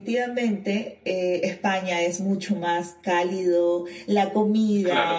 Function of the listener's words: listening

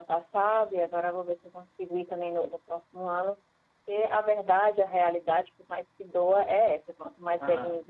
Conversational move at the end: listening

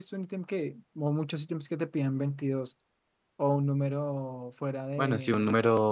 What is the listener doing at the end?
taking over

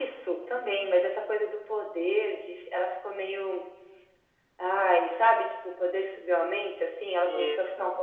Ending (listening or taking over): listening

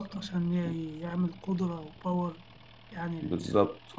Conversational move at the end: taking over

